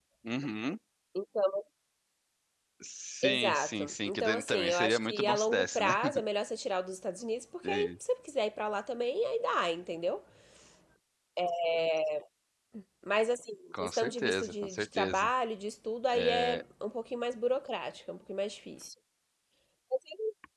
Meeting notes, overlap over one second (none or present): present